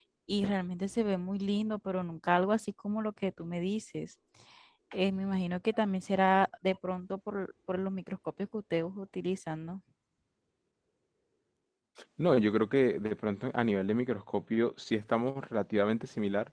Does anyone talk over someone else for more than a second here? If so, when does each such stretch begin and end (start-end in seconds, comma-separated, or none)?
none